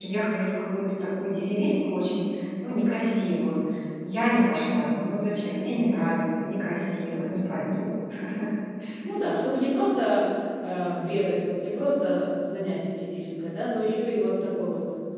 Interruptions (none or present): none